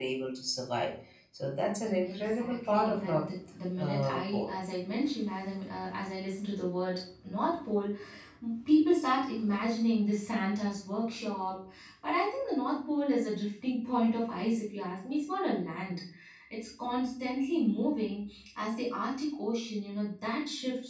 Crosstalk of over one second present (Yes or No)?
Yes